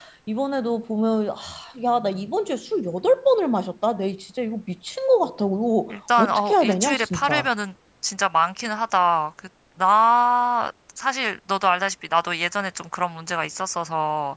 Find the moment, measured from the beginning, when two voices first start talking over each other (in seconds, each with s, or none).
5.9 s